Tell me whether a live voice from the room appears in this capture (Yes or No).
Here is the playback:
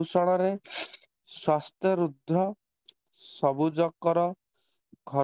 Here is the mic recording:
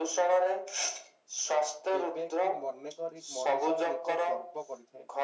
Yes